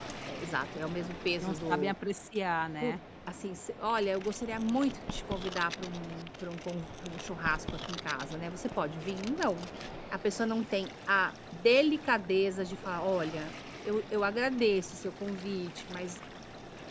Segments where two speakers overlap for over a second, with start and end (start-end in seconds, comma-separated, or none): none